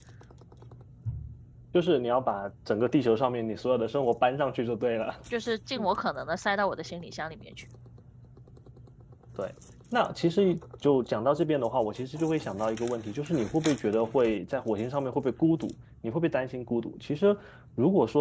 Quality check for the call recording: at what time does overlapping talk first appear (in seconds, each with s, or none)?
none